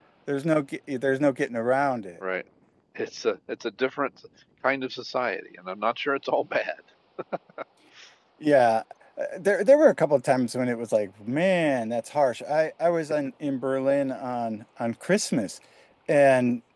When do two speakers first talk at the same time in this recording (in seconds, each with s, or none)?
none